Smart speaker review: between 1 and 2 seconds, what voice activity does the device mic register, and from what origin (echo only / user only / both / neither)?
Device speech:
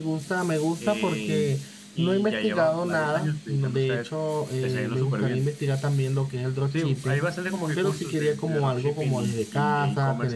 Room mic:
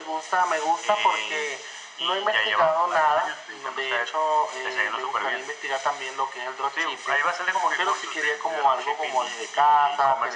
echo only